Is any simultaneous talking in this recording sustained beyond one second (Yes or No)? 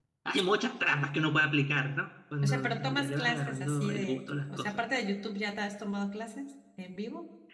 Yes